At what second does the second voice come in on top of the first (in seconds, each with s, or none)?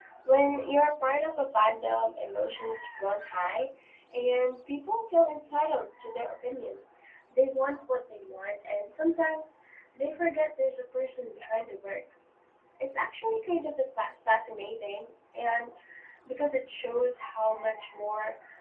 none